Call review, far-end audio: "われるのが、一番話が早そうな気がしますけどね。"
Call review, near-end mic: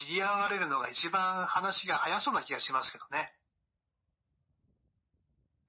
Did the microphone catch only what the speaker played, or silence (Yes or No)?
Yes